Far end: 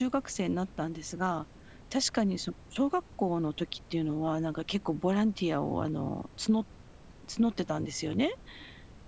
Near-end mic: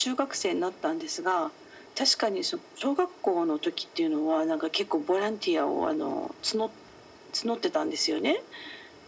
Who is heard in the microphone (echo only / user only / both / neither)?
echo only